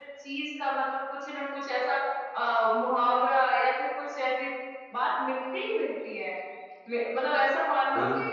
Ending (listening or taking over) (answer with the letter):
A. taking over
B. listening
B